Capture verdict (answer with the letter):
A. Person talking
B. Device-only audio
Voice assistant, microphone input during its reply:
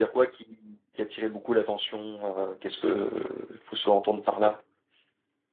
A